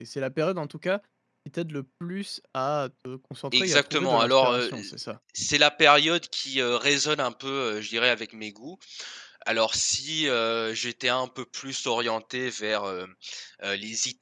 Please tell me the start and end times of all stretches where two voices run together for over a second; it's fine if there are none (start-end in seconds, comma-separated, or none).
3.5-4.9